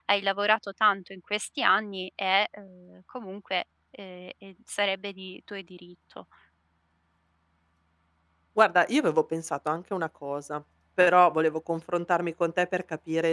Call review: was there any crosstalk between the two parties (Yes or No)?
No